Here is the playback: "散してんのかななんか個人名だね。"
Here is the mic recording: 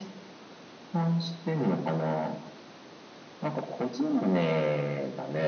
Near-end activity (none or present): none